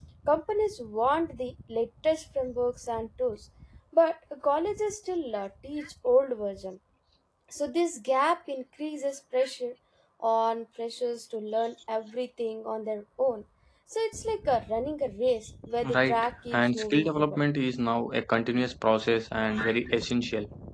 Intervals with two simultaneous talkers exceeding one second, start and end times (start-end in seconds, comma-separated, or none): 15.9-17.4